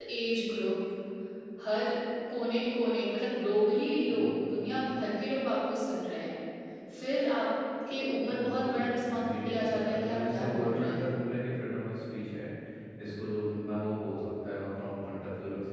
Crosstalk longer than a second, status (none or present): present